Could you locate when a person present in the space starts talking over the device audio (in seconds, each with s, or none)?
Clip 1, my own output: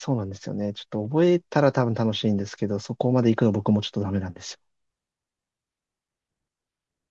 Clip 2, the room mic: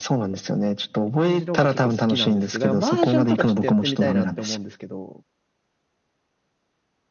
1.2 s